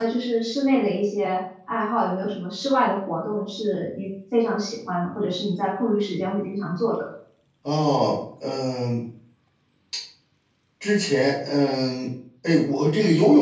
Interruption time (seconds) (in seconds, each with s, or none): none